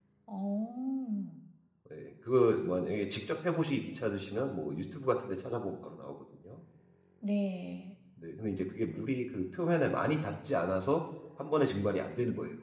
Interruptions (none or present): none